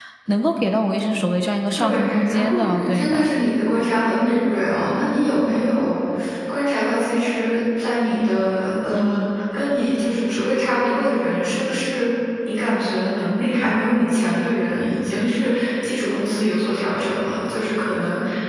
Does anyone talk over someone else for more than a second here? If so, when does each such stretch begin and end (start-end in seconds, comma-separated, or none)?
1.8-3.3